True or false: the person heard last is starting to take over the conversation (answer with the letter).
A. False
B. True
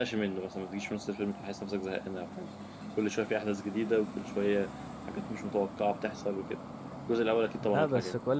B